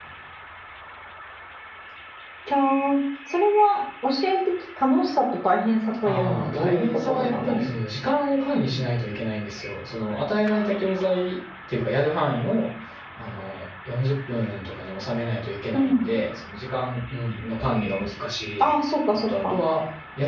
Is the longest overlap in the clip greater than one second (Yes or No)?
Yes